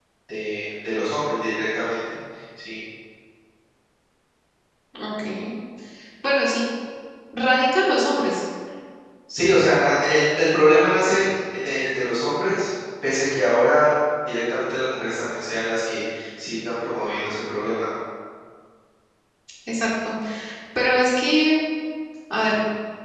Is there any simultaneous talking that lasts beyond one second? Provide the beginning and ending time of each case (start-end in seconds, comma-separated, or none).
none